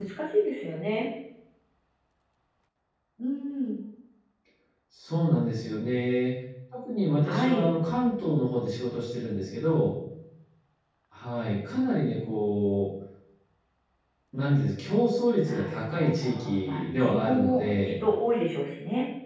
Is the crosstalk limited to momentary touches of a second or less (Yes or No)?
No